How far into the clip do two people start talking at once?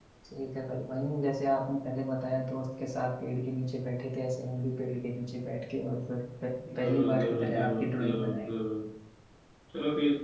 6.6 s

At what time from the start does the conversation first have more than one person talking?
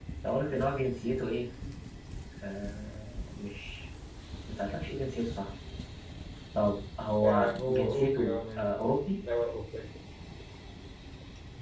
7.2 s

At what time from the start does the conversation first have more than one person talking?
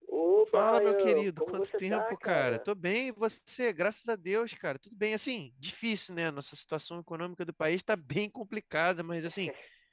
0.5 s

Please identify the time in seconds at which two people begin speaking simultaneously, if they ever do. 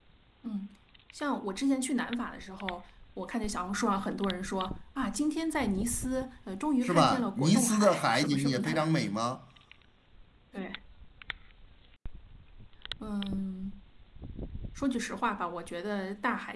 6.8 s

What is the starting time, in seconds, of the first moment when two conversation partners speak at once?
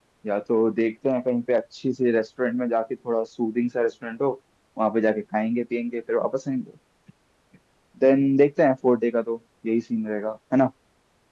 none

